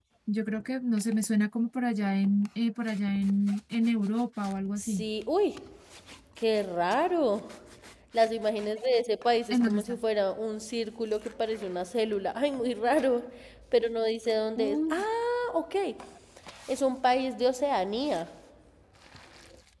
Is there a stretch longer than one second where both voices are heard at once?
No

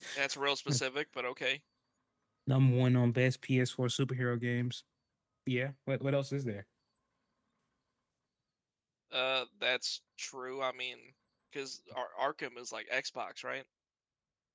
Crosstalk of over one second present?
No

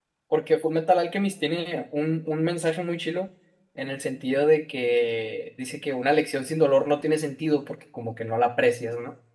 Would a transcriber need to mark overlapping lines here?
No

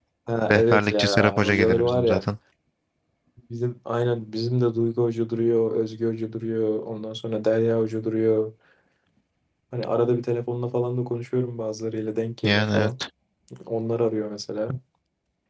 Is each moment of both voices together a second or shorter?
No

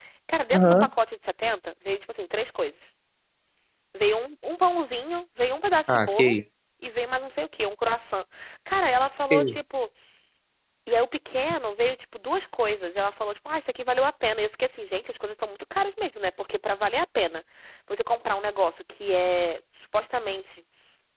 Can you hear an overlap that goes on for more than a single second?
No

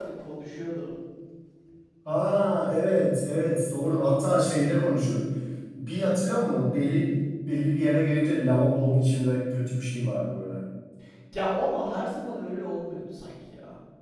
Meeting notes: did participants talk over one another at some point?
No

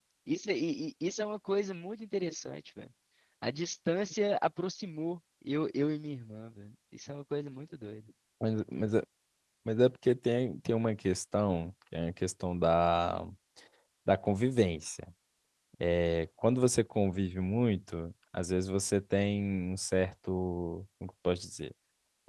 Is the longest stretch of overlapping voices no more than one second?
Yes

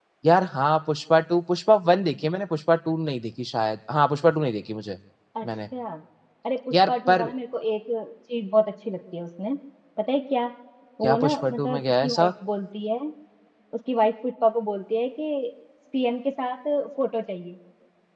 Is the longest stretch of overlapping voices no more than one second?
No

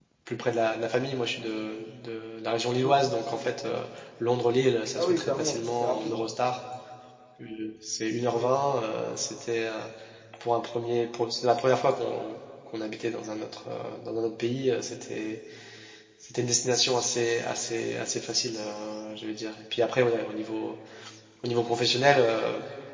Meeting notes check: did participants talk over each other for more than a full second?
Yes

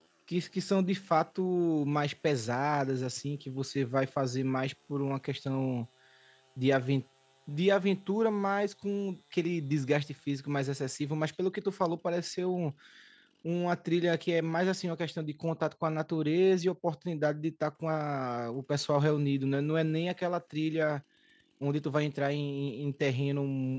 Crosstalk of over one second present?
No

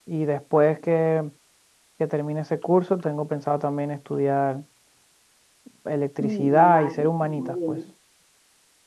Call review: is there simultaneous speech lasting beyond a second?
Yes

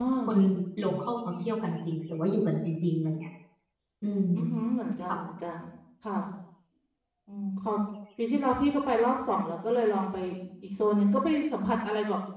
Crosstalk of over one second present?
No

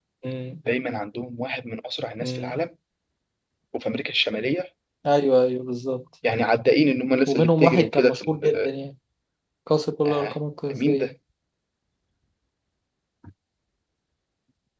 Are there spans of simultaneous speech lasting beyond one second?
Yes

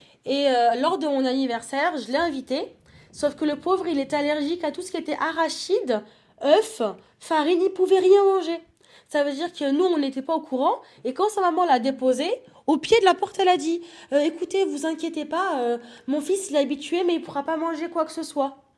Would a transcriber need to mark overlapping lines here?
No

